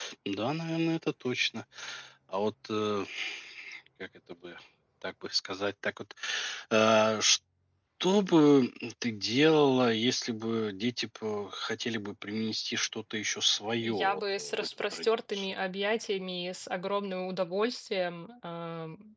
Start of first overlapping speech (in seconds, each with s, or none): 13.8 s